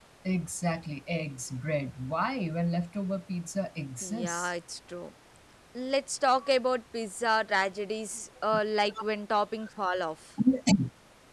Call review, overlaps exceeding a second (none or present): none